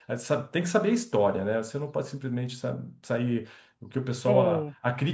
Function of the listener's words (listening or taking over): listening